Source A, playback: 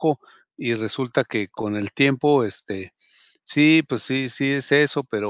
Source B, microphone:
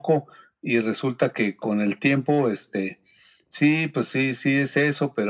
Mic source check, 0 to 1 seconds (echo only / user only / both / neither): echo only